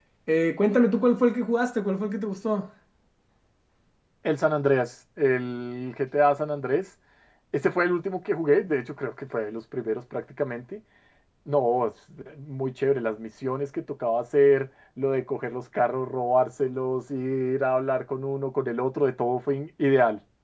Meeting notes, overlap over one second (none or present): none